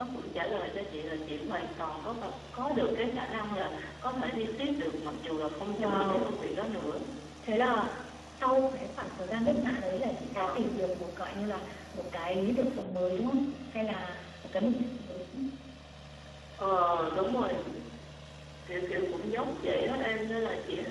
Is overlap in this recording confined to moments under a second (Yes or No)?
Yes